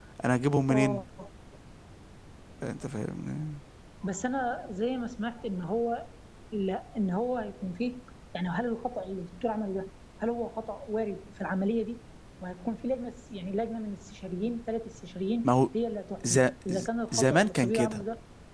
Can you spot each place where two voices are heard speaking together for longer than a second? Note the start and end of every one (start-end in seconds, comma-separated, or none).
16.2-18.0